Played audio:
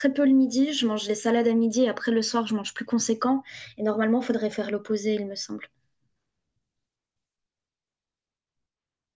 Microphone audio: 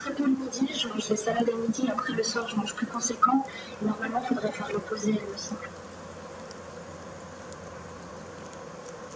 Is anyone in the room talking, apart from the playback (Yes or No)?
No